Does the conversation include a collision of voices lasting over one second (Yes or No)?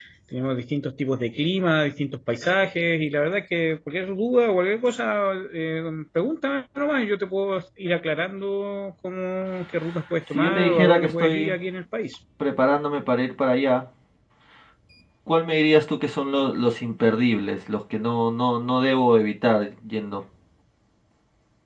Yes